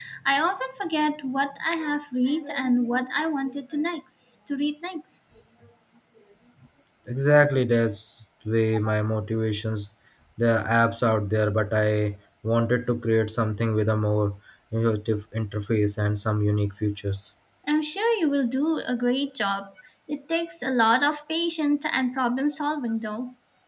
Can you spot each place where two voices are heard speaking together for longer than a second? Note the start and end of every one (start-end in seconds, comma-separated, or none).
none